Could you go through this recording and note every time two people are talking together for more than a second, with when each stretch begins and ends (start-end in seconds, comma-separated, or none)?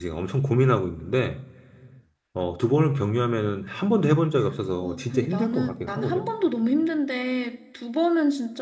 4.8-6.3